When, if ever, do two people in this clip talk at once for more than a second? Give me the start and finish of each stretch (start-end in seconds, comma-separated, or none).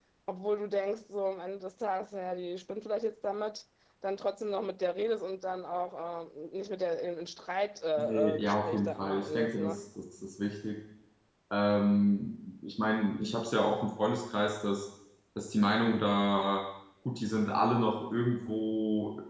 8.0-9.8